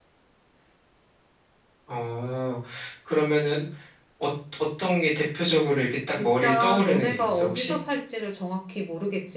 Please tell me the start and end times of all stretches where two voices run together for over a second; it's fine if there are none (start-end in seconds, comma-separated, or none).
6.2-7.8